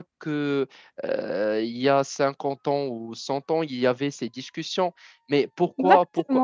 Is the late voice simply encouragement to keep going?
Yes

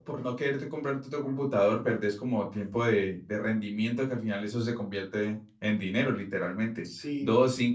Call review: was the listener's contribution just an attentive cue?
Yes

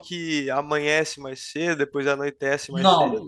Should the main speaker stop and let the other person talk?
Yes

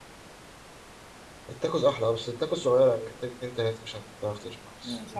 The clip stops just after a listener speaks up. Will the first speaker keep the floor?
No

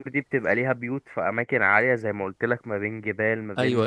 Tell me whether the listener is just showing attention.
Yes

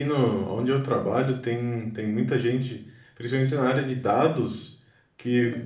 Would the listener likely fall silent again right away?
Yes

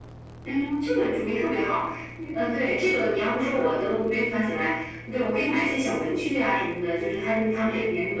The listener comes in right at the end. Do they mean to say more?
No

